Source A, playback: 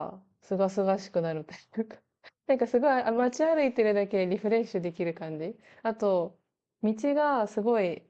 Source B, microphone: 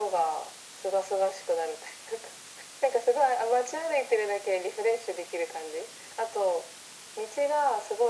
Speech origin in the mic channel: echo only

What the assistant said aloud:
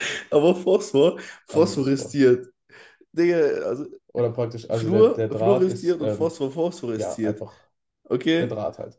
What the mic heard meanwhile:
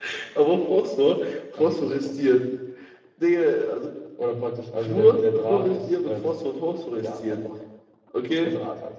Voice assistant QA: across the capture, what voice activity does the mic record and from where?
echo only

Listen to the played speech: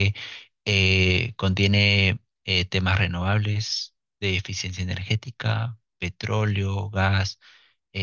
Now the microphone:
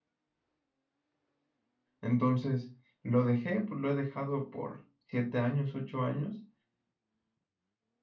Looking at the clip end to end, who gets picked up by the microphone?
user only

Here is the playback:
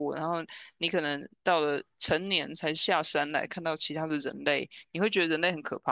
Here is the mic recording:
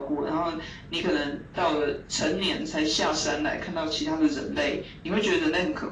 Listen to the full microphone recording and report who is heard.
echo only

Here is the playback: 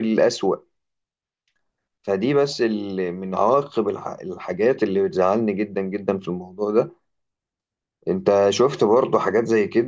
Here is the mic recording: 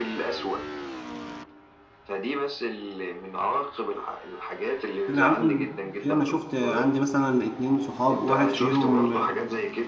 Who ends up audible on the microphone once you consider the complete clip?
both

